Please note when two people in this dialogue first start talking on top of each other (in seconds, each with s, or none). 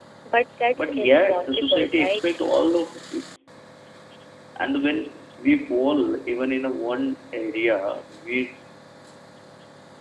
0.8 s